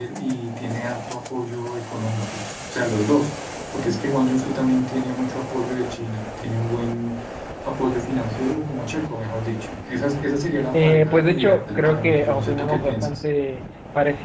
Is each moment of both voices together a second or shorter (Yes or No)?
No